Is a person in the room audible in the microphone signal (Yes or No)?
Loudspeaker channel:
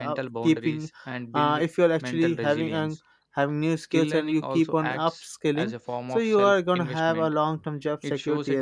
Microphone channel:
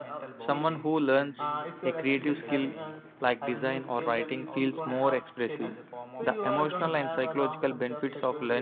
Yes